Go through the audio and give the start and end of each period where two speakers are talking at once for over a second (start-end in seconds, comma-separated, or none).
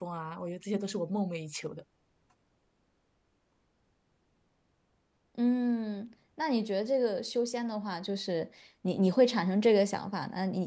none